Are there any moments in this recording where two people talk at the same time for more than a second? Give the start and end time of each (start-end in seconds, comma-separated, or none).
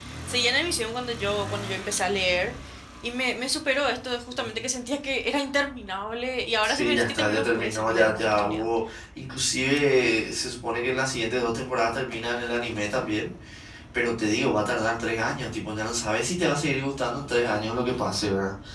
6.6-8.7